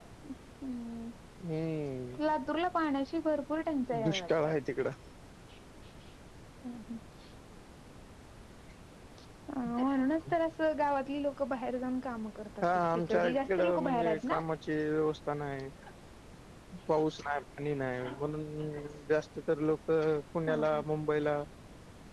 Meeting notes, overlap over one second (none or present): present